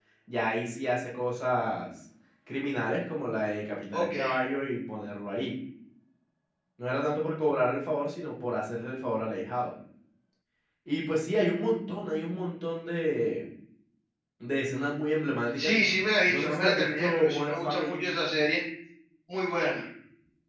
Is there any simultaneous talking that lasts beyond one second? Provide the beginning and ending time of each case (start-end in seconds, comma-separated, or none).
16.3-18.0